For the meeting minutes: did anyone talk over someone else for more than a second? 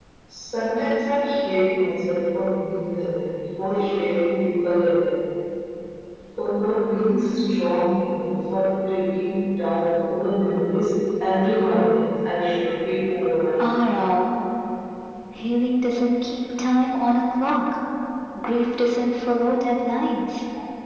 No

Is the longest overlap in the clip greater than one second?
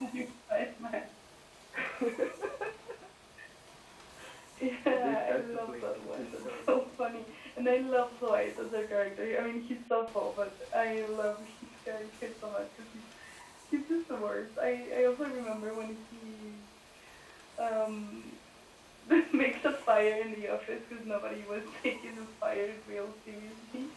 Yes, from 4.9 s

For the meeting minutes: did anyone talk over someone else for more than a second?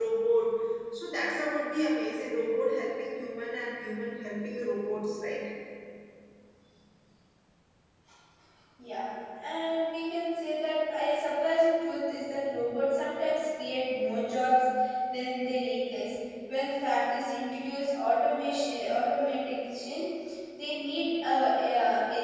No

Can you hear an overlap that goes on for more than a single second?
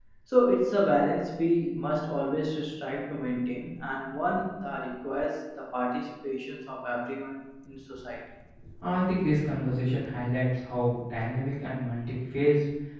No

